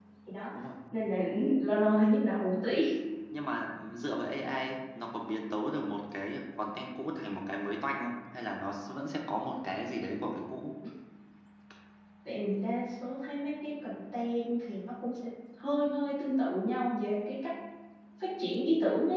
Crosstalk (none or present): none